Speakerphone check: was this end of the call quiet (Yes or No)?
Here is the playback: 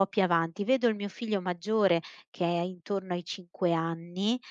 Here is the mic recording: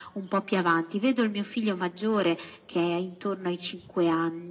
Yes